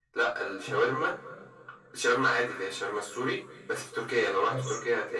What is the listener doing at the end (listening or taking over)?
listening